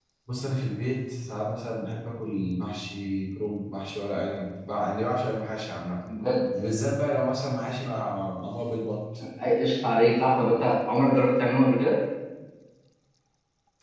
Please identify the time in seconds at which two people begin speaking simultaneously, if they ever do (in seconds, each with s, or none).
none